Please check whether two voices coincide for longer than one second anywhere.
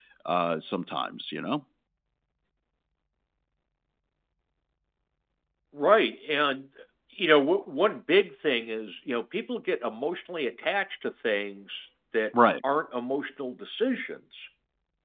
No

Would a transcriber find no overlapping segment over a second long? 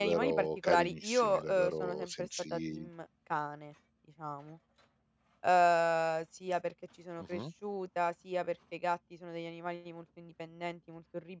No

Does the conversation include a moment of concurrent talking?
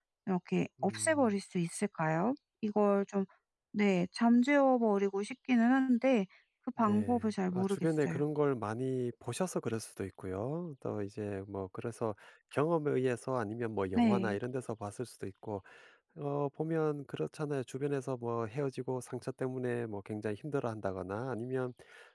Yes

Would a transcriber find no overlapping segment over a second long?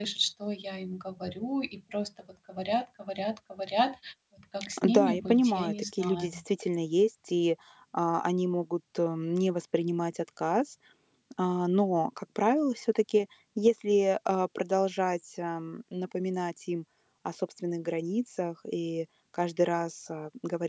No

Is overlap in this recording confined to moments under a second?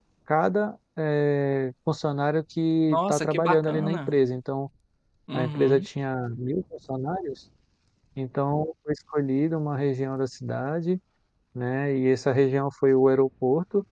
No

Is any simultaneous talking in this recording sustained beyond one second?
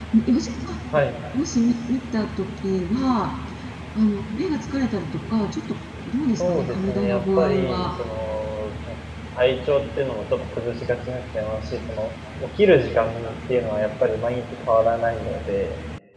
Yes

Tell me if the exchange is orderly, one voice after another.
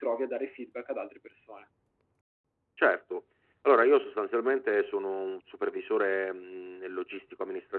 Yes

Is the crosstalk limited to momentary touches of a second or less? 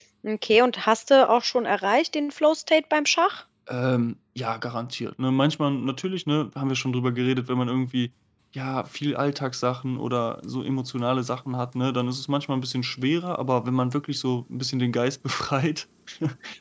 Yes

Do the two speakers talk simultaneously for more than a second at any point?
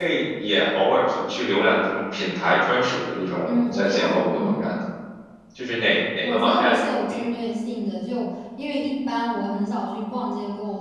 Yes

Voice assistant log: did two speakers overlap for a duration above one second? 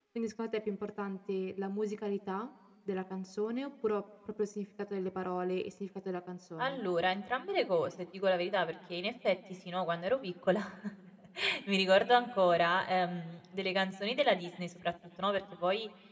No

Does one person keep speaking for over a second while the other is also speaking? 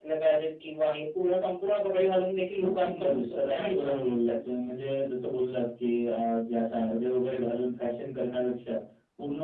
Yes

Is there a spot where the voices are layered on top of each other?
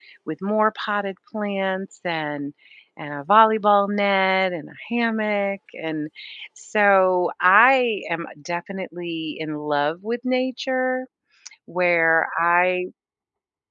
No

